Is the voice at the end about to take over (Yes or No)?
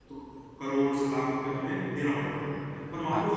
No